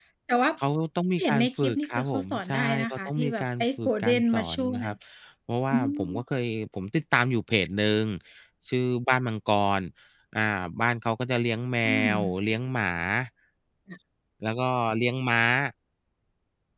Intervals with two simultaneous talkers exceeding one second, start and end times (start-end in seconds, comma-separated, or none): 1.2-4.7